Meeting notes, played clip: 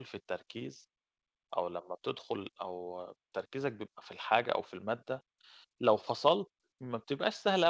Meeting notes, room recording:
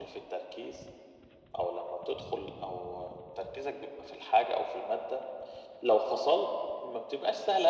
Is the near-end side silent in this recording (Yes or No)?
Yes